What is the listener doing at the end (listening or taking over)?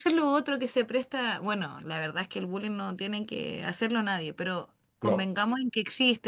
listening